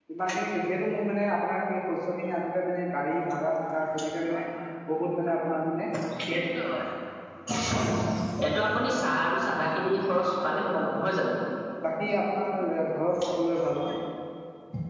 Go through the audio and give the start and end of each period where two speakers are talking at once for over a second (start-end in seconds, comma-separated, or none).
none